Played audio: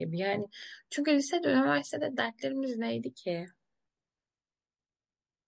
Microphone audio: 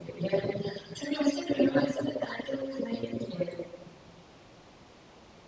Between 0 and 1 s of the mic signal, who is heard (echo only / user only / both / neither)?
echo only